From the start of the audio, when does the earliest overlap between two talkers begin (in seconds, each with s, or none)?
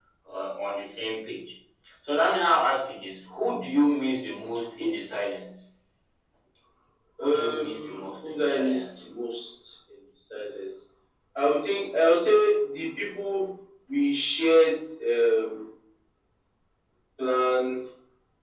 7.2 s